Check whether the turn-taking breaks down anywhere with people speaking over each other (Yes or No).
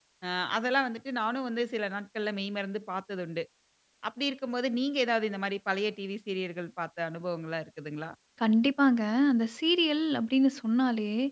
No